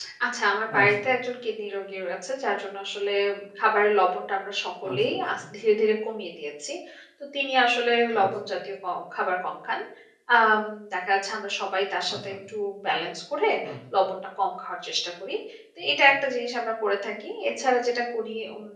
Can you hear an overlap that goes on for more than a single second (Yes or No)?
No